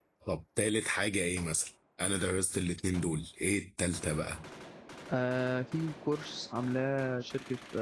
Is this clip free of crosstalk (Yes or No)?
Yes